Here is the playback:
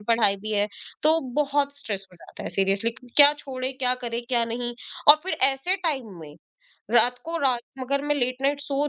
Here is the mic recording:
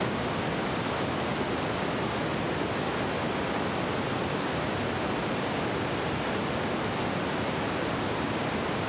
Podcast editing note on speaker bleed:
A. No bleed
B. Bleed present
A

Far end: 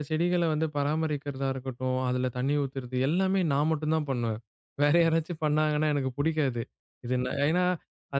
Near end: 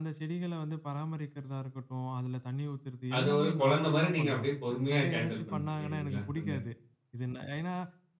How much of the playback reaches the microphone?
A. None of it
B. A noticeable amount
B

